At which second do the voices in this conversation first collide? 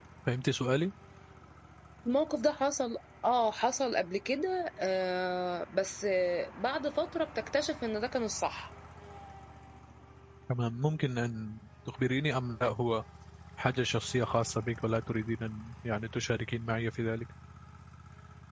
none

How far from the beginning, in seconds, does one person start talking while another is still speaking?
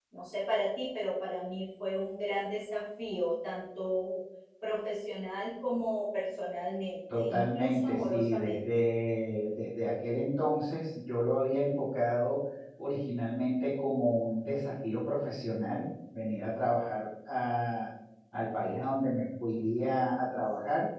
7 s

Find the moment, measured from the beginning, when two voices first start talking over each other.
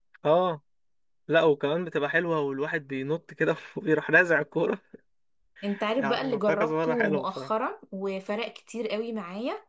6 s

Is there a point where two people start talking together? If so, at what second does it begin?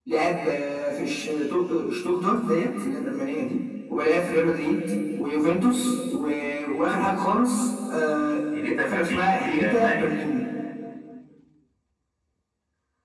9 s

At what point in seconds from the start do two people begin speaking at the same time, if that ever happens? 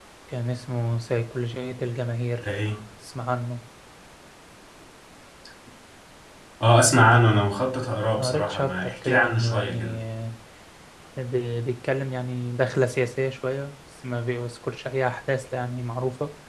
8 s

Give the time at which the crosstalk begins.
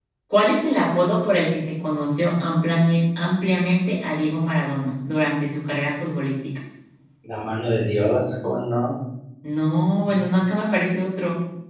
none

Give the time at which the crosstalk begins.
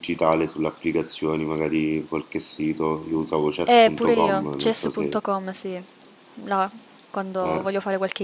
4 s

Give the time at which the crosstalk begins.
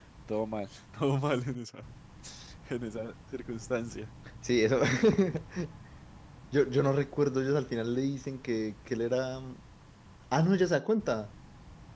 none

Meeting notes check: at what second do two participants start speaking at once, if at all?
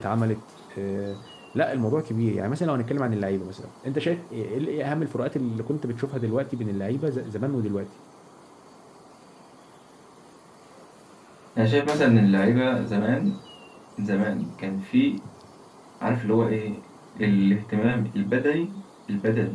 none

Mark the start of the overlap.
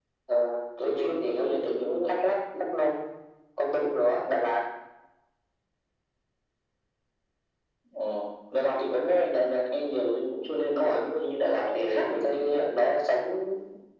1 s

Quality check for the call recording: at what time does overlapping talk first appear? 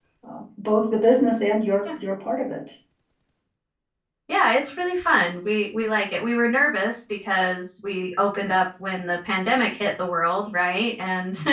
none

